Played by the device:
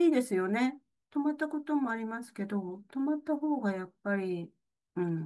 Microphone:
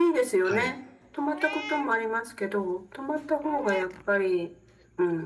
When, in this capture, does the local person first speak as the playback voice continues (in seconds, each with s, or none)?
0.4 s